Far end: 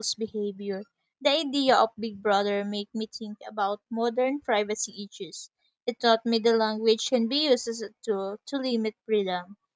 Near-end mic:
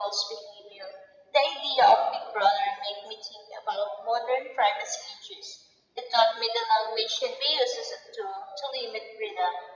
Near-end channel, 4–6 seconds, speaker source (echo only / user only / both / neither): echo only